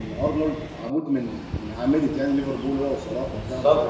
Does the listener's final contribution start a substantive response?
No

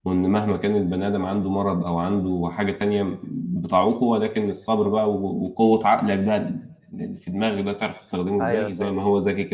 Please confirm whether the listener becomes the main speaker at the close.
No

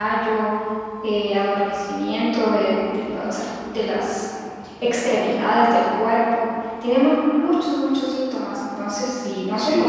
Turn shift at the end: No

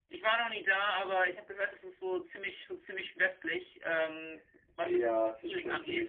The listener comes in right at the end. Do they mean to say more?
Yes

